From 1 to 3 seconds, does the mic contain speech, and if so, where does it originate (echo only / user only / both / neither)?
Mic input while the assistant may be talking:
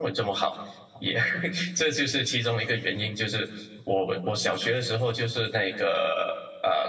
user only